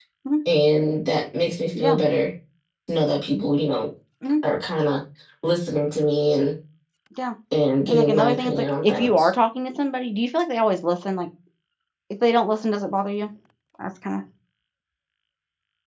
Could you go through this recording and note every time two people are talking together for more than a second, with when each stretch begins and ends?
7.9-9.3

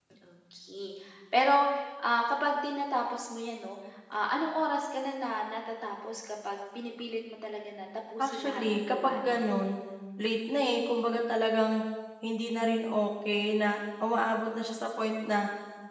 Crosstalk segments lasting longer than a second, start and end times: 8.2-9.5

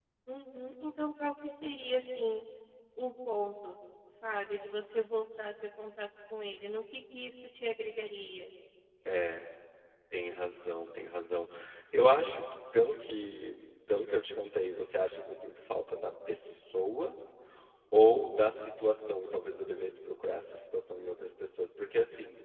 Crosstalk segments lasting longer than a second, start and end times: none

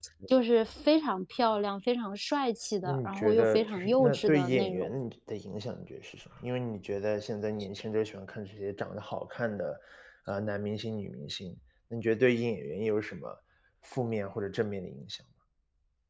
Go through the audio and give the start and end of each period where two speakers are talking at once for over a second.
2.8-4.9

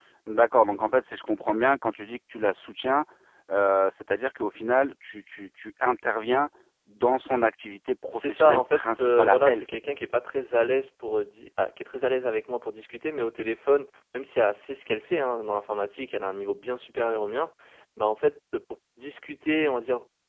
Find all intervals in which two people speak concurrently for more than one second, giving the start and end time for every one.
8.1-9.7

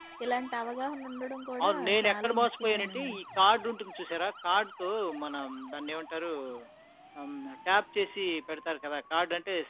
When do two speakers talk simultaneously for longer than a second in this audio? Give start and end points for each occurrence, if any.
1.6-3.2

